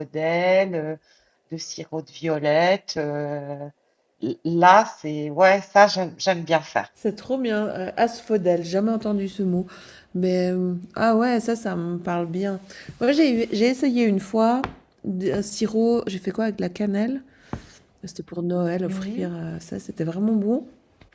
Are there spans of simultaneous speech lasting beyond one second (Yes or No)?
No